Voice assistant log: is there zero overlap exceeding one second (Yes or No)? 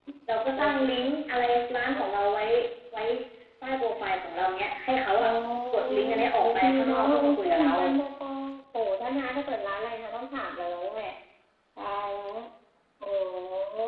No